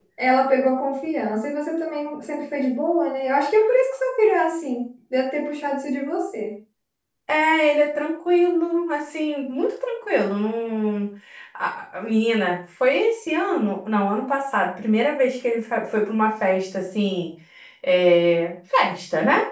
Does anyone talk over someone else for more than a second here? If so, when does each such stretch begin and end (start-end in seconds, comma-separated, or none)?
none